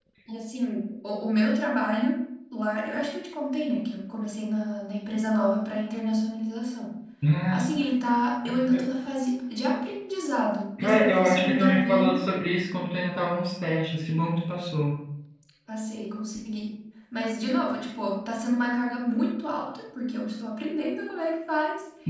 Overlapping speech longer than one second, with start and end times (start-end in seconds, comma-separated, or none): 10.8-12.3